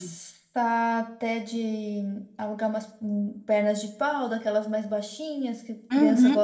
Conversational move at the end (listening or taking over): taking over